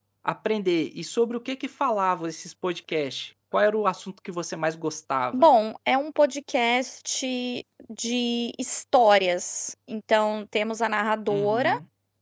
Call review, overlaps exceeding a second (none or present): none